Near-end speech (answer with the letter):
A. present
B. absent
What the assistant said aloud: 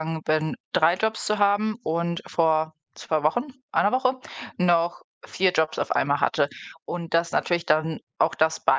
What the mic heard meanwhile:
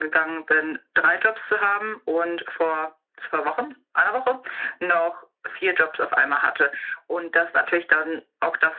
B